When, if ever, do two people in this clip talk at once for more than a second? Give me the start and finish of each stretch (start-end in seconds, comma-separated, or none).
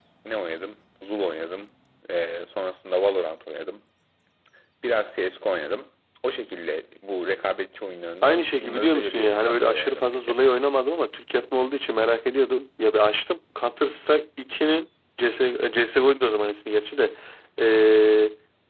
8.2-10.4